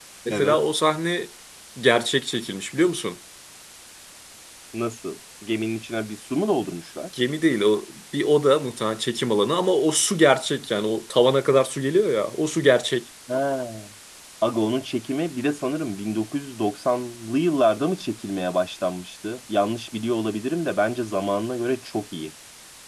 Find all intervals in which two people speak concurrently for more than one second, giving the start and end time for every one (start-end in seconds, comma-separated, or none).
none